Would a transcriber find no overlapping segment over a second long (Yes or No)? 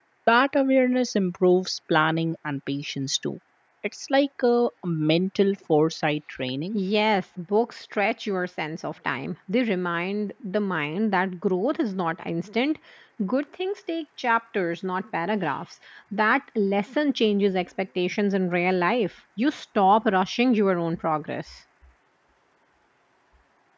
Yes